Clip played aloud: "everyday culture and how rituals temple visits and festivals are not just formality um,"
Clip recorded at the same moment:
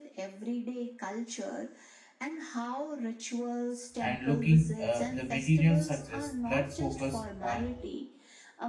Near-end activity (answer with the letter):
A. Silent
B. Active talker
B